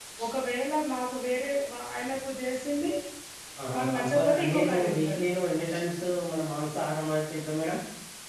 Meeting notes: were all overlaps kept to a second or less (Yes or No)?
No